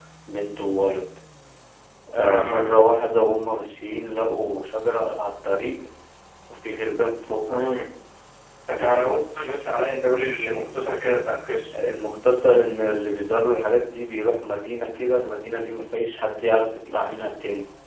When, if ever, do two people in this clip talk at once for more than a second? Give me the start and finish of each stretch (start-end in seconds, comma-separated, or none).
none